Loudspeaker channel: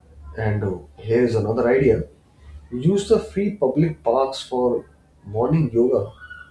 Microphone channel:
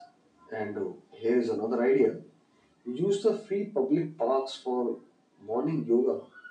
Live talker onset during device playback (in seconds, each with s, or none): none